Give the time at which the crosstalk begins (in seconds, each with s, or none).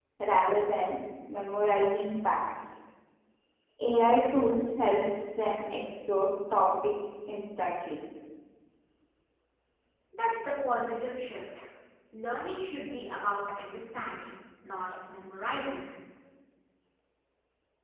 none